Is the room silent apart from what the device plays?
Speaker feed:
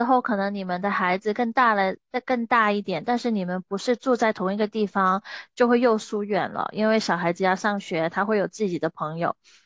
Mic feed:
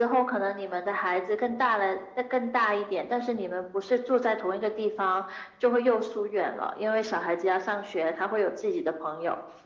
Yes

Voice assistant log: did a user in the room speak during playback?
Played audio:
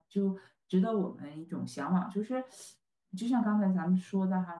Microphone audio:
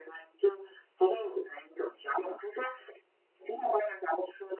No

